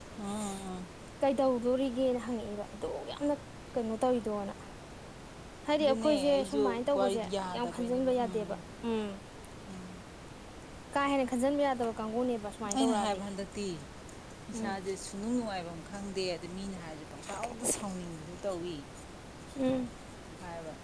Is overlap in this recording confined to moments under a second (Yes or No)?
No